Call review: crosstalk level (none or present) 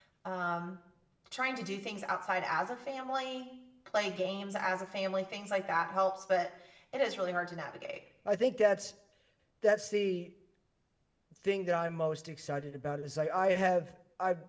none